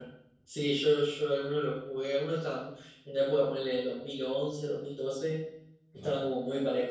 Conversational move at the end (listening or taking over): listening